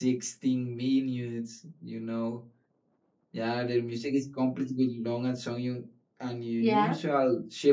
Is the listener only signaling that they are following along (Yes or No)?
Yes